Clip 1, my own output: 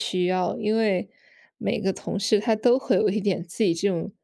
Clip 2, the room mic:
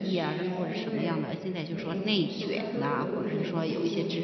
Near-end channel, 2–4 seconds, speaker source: both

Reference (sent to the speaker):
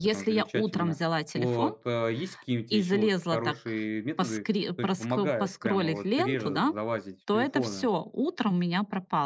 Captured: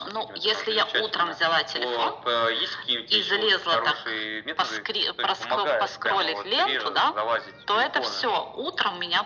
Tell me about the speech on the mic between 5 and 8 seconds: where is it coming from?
echo only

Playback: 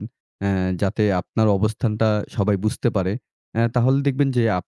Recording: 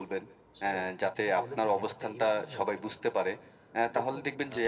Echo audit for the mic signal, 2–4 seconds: both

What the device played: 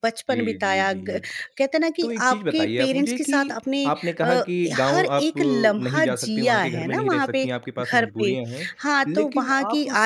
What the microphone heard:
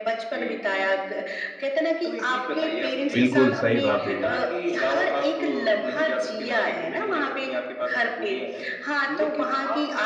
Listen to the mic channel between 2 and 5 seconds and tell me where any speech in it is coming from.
both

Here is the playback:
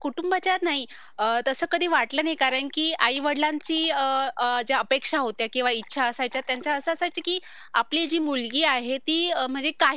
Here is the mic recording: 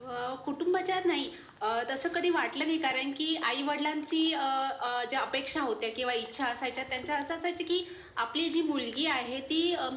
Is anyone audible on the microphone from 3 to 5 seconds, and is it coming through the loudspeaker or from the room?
echo only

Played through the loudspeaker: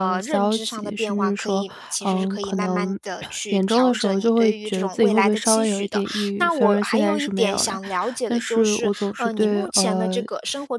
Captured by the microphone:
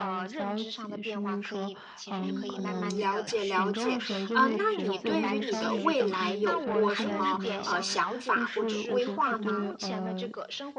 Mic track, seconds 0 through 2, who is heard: echo only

